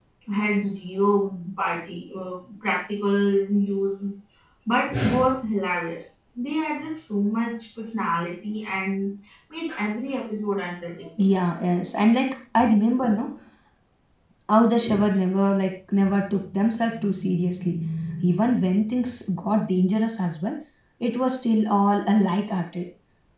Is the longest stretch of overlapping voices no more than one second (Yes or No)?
Yes